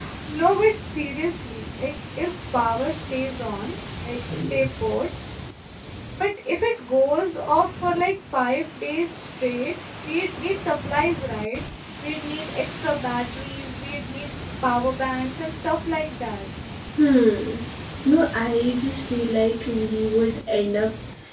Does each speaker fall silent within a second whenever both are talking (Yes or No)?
Yes